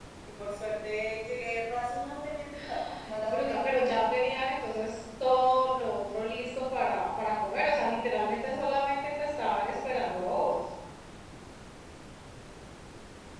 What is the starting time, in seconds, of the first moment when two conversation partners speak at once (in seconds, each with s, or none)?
2.5 s